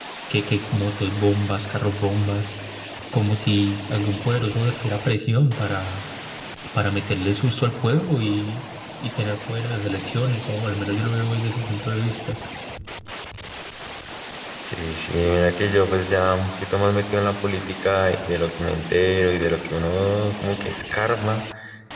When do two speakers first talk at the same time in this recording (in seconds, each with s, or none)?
none